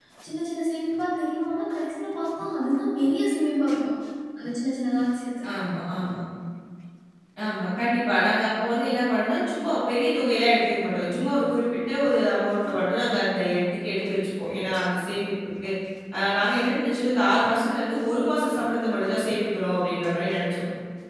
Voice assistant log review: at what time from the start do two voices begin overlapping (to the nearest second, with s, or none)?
none